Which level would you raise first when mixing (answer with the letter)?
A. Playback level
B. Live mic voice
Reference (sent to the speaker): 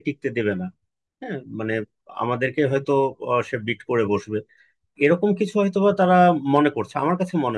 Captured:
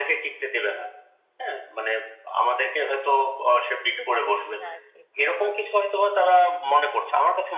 B